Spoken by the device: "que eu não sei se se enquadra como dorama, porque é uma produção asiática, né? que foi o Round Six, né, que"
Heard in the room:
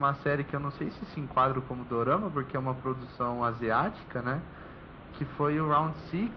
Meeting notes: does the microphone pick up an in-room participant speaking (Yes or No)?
No